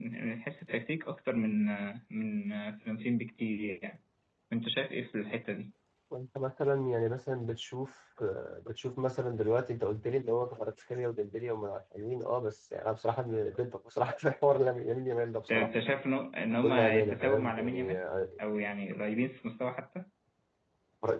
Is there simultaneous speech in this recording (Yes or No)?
Yes